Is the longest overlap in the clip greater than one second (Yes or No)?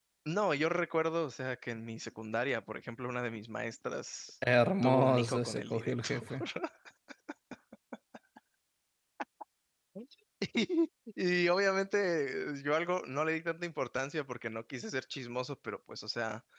Yes